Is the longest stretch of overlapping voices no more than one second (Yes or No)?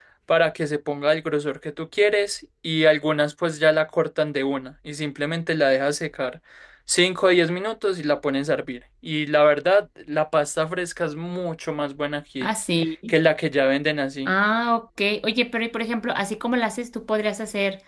Yes